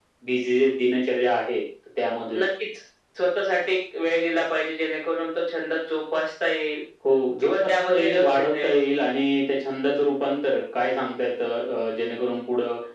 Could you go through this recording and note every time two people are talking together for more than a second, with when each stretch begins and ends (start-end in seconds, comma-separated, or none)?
7.4-8.8